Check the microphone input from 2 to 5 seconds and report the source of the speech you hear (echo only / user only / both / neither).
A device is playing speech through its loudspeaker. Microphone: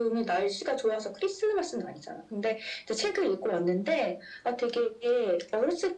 echo only